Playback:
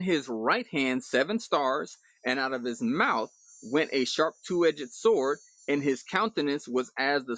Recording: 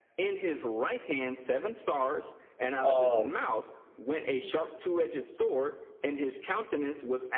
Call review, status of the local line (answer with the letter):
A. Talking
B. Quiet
A